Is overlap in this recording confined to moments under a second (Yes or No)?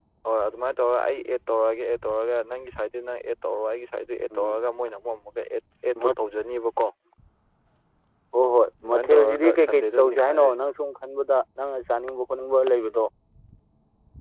No